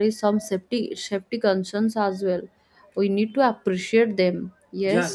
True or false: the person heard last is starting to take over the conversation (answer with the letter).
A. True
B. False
A